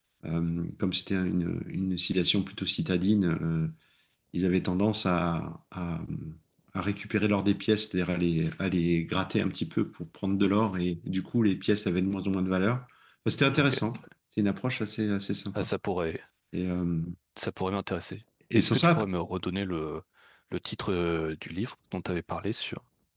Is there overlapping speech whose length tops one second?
No

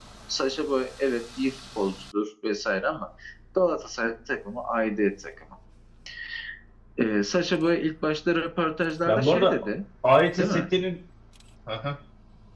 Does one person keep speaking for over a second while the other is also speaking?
No

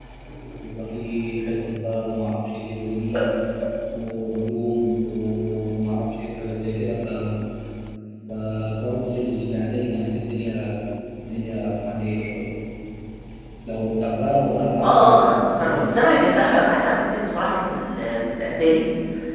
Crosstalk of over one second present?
Yes, from 14.8 s

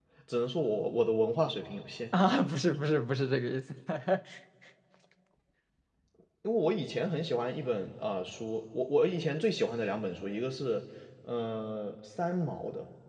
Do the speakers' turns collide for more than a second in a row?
No

